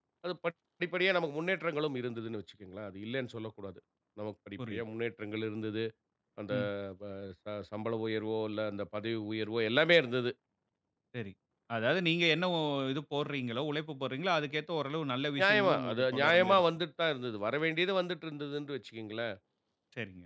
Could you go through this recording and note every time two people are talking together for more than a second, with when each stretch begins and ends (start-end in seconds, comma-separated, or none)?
15.4-16.6